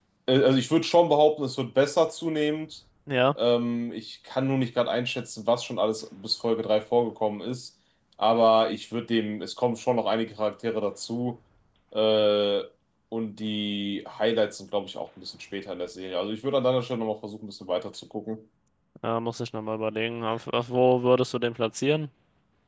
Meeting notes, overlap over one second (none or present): none